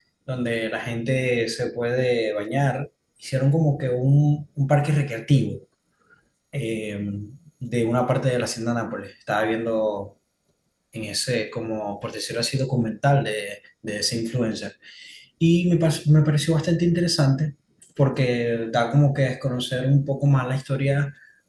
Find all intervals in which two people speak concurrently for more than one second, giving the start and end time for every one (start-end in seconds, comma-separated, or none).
none